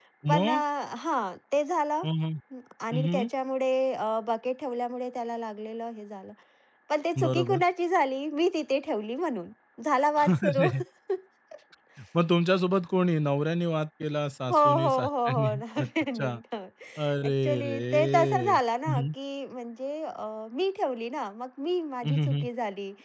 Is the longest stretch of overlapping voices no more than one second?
No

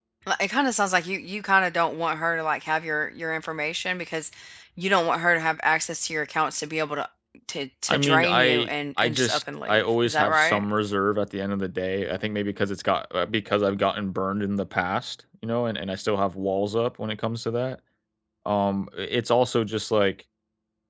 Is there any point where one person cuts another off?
Yes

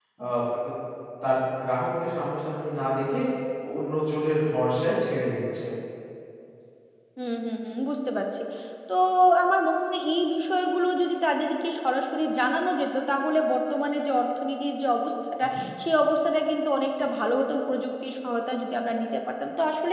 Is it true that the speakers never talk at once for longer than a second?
Yes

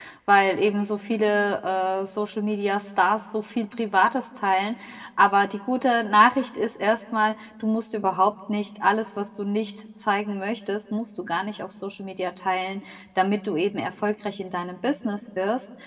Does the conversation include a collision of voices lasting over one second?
No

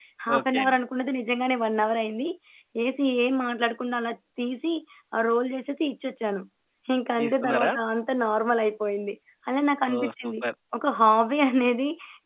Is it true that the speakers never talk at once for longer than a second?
Yes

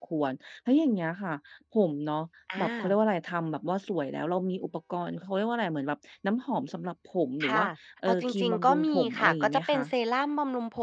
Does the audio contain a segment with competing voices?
Yes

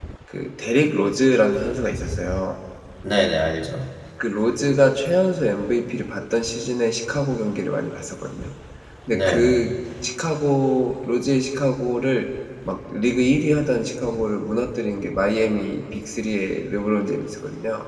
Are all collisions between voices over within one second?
Yes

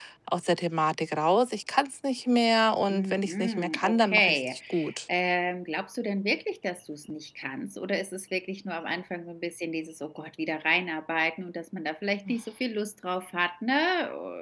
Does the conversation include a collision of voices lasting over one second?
Yes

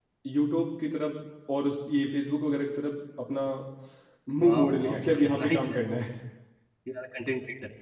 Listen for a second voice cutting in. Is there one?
Yes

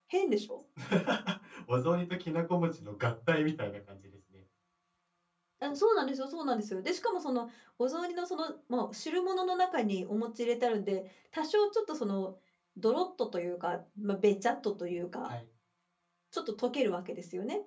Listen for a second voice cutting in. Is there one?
No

